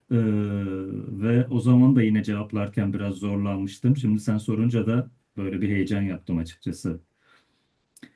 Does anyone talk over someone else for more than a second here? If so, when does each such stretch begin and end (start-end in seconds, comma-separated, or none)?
none